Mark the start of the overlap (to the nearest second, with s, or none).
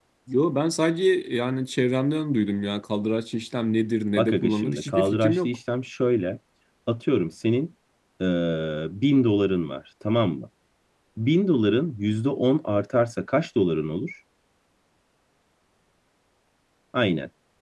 4 s